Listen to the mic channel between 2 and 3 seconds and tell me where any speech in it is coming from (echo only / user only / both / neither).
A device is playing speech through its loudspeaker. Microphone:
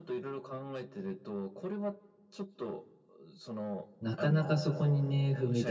echo only